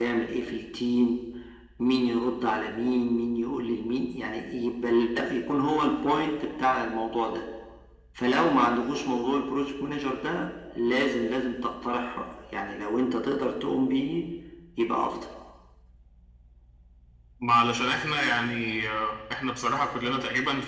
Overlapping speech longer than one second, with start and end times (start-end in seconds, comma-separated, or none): none